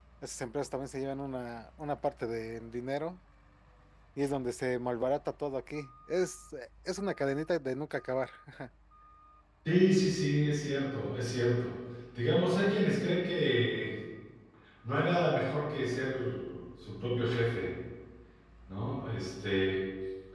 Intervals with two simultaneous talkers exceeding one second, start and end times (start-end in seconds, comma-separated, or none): none